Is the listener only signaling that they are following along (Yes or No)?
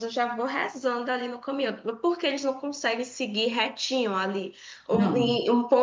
Yes